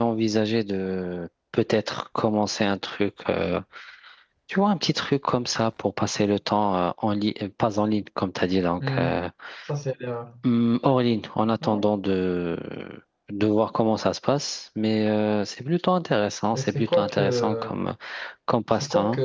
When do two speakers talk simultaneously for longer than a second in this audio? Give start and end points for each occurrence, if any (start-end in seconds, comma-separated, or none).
16.5-17.7